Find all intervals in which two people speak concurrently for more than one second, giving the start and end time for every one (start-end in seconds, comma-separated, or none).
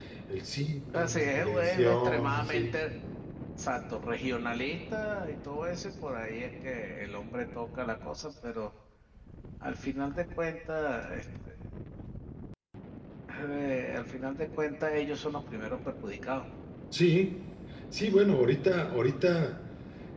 0.9-2.8